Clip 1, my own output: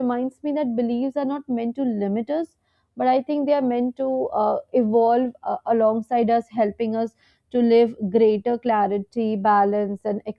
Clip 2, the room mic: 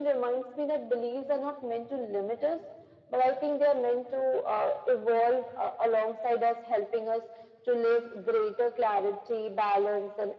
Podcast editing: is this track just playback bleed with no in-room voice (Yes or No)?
Yes